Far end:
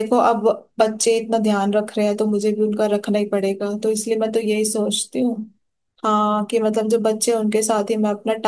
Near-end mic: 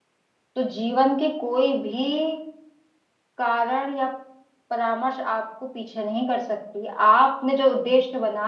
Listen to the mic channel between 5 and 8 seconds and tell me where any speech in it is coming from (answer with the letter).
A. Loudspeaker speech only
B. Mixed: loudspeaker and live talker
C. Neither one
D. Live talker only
D